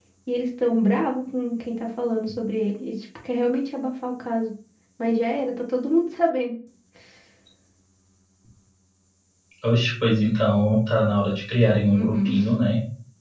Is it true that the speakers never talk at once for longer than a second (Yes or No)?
Yes